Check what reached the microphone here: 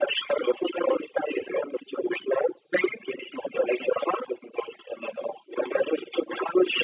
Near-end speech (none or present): none